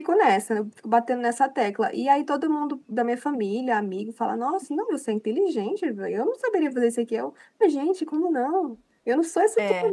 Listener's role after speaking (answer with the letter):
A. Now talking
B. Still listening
B